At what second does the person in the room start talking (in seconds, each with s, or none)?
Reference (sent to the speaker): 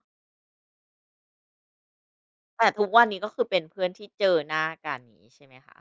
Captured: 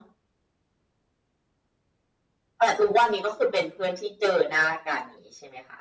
none